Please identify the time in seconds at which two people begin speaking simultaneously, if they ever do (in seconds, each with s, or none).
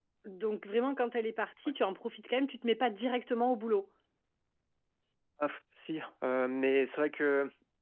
none